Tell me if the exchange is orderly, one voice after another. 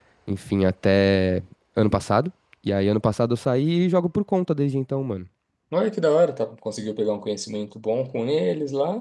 Yes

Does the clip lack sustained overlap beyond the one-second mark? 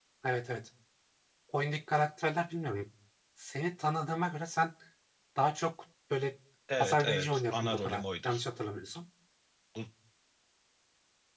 No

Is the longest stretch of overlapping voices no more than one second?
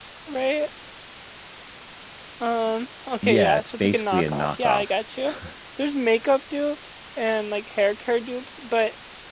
No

